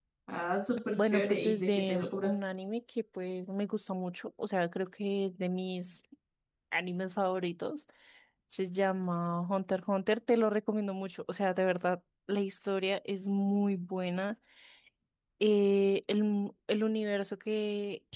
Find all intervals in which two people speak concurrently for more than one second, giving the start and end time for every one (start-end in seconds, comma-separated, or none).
1.0-2.3